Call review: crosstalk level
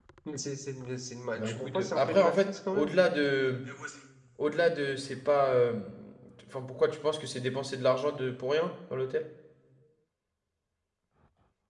present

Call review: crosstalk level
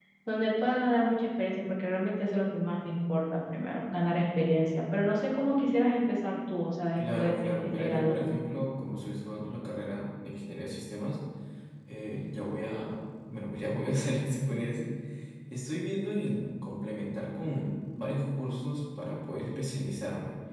present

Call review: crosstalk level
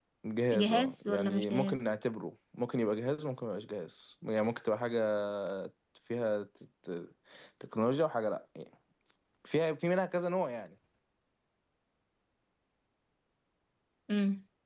present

